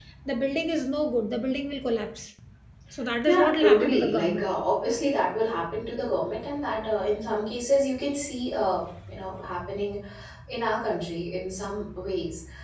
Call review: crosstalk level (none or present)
present